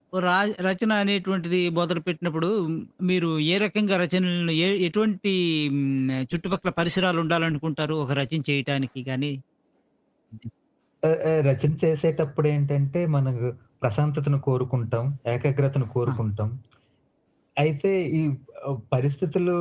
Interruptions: none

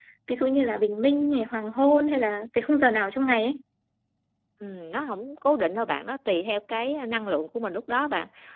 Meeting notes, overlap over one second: none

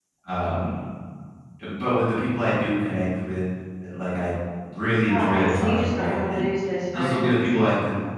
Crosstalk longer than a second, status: present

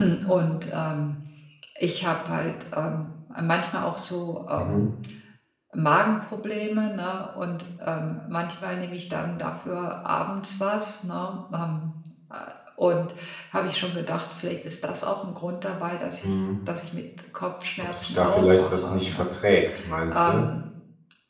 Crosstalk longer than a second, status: present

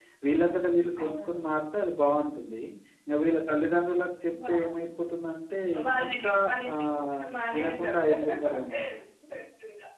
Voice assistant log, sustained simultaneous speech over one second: present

